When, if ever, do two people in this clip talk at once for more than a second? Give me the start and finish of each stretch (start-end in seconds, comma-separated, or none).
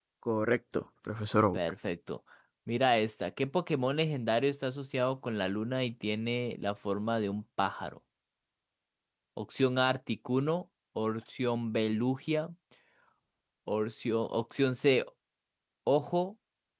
none